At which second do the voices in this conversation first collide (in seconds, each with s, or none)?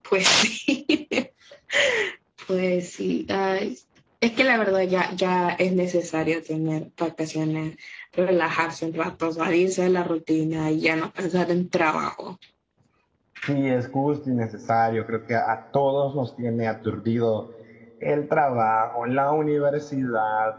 none